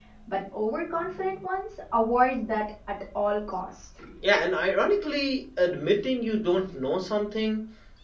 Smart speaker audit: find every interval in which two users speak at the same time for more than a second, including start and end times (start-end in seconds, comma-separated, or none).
none